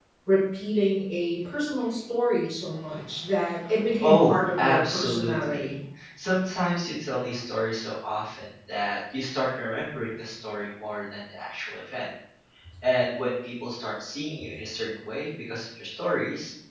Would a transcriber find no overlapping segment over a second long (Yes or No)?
No